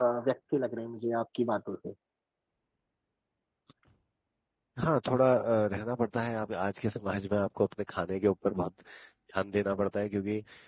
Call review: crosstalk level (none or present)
none